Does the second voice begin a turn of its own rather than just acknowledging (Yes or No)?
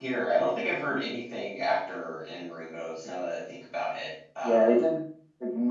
Yes